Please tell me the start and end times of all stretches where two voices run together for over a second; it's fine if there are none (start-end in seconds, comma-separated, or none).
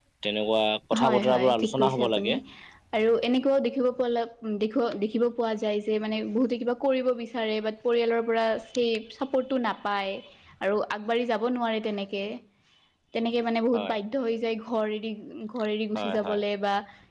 1.0-2.3